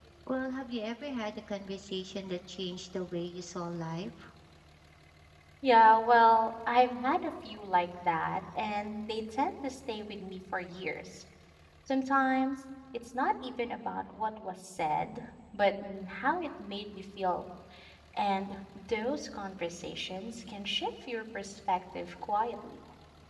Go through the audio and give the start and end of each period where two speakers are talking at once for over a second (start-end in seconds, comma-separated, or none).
none